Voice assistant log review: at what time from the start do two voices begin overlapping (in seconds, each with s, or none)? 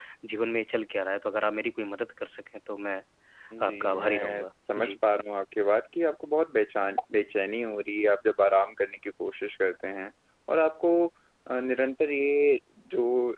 3.6 s